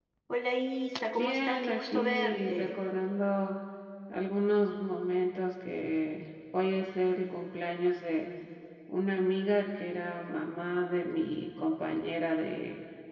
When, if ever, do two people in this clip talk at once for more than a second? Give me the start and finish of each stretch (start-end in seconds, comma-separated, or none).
1.1-2.8